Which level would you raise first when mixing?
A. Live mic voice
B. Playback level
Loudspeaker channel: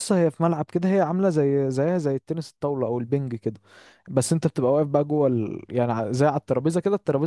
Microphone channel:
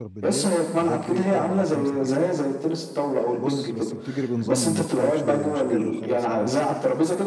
A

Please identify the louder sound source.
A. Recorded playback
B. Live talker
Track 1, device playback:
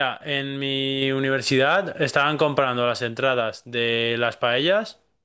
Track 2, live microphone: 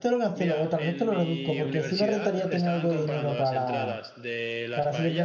B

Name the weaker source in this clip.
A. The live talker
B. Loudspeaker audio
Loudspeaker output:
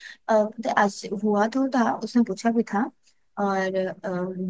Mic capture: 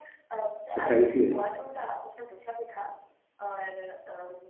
B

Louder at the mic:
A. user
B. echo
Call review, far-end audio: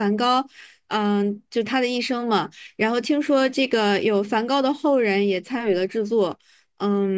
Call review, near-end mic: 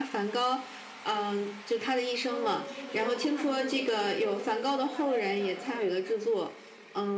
B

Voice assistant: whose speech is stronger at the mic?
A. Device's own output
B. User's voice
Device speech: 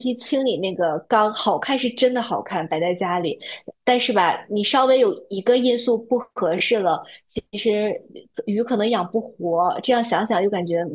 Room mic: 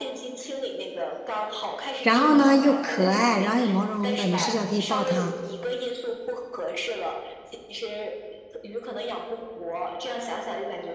B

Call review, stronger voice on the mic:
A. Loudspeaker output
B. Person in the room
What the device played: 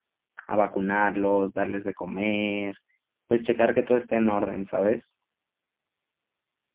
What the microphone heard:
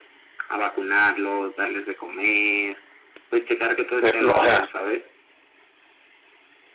B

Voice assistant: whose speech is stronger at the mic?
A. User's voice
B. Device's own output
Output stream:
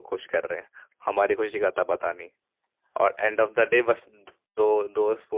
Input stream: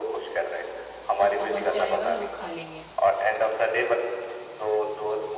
B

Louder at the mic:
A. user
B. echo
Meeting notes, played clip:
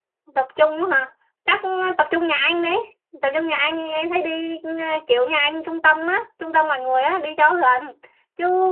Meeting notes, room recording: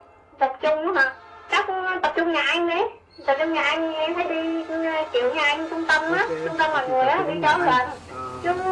B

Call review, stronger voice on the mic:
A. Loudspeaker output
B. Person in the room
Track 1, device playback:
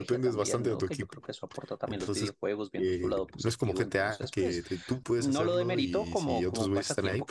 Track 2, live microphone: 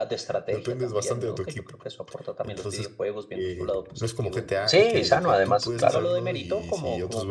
B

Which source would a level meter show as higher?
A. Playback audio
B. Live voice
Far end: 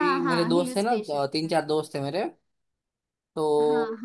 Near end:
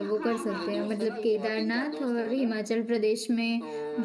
B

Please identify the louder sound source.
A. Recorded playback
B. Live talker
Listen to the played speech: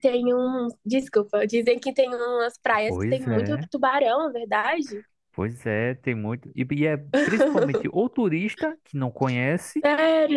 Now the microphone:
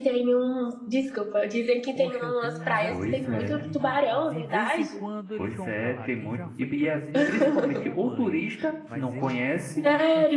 A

